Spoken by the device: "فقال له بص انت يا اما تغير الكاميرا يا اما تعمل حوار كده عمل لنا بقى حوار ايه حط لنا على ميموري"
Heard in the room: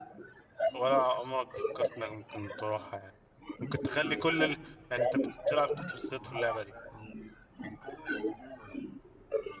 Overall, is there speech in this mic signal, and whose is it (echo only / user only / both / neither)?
both